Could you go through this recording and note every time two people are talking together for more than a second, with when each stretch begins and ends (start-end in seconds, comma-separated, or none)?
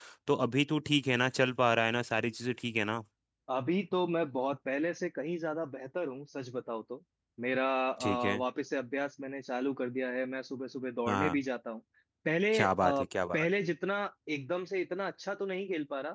none